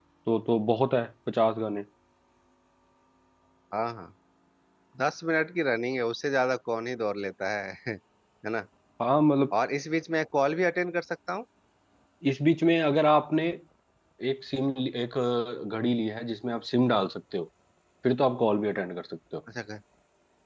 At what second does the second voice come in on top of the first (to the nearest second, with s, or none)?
none